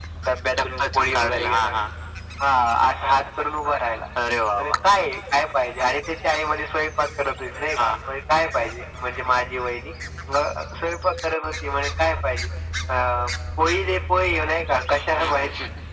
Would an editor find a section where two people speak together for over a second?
Yes, from 0.5 s

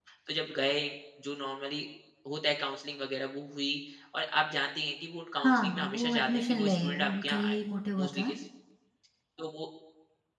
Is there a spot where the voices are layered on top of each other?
Yes, from 5.4 s

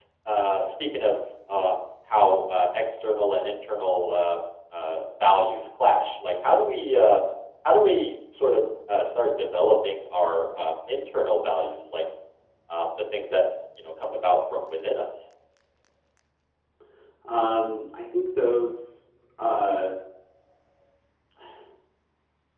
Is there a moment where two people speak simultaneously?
No

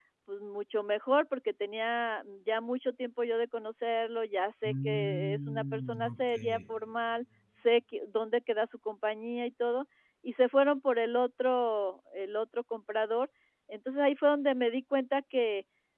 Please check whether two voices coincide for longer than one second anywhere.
Yes, from 4.6 s

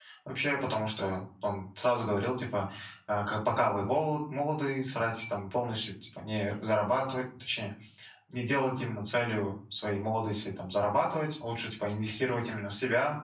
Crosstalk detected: No

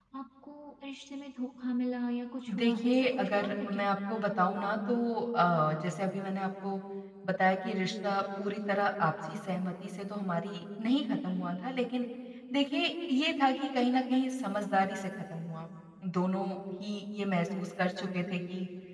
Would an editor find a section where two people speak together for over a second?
Yes, from 2.5 s

